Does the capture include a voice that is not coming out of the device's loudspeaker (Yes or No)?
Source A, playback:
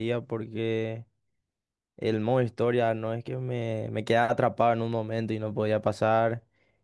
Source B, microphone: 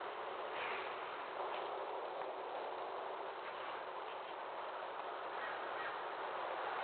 No